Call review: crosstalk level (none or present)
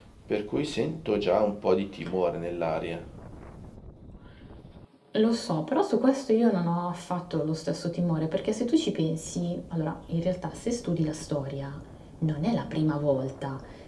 none